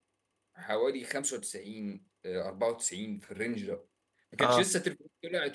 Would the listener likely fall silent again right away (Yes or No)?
Yes